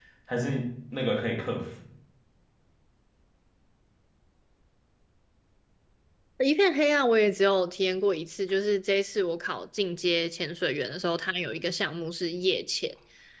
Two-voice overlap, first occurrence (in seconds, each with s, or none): none